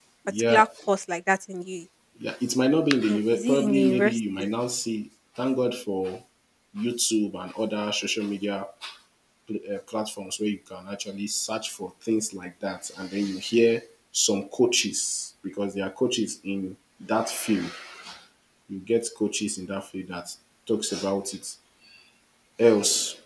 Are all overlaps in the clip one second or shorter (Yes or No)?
No